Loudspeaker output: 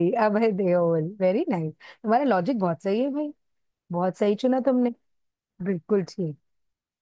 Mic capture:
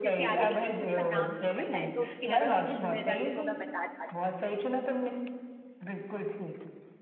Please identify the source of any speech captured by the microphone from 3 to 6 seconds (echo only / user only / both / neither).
both